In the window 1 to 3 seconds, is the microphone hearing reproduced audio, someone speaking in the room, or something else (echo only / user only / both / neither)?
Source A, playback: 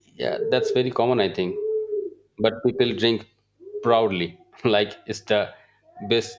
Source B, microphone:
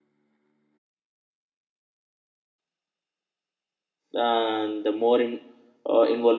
neither